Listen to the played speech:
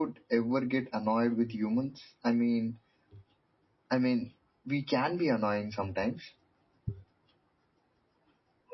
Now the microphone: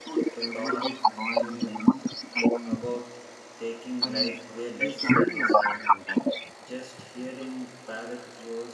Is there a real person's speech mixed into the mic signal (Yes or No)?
Yes